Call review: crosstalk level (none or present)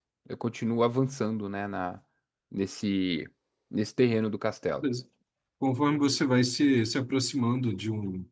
none